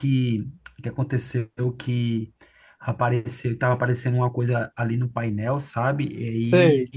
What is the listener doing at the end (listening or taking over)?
listening